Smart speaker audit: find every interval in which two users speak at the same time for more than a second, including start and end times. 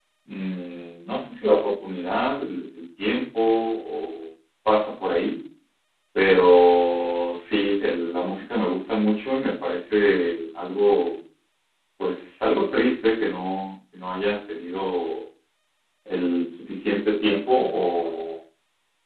none

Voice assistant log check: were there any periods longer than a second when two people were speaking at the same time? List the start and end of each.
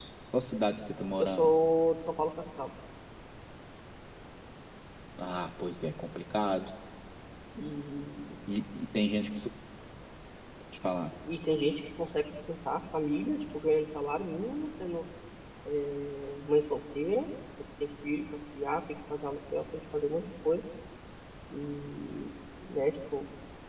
none

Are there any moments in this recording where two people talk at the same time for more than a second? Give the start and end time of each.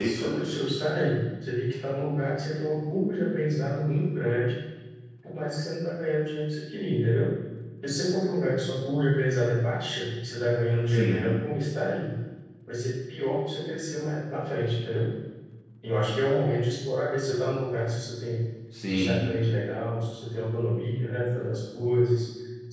none

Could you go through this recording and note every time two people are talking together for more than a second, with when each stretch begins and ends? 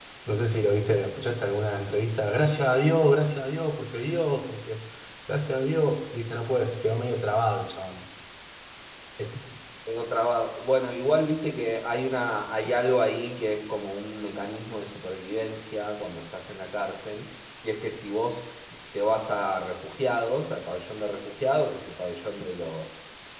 none

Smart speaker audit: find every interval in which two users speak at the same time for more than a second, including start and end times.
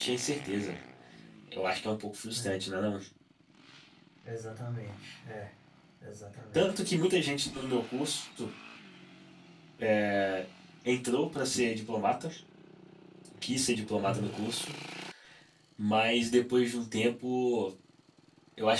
none

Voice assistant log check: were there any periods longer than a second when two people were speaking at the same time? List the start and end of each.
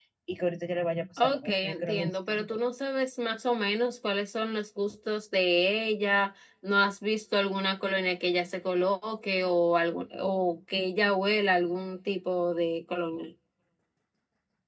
1.2-2.6

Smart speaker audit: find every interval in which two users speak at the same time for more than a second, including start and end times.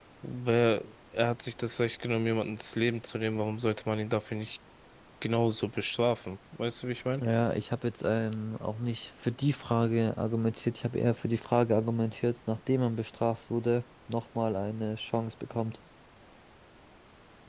none

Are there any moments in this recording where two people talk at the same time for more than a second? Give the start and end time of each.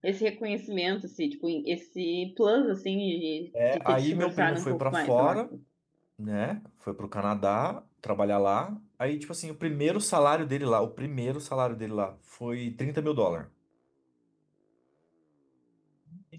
3.7-5.4

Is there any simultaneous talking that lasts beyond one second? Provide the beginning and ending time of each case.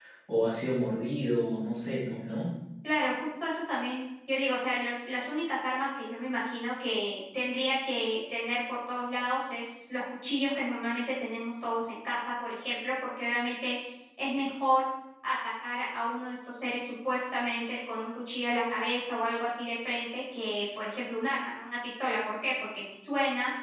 none

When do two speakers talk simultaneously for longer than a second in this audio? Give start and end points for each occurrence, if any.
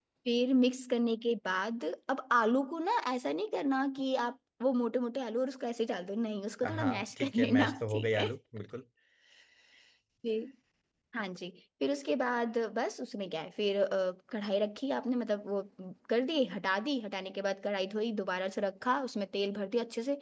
6.6-8.2

